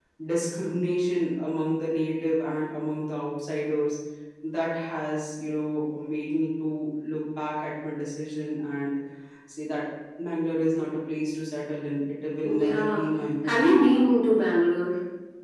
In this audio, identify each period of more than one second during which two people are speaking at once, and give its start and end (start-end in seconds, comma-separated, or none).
none